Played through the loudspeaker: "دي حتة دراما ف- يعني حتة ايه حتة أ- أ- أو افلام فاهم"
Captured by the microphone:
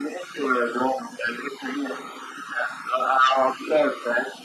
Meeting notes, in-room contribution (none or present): none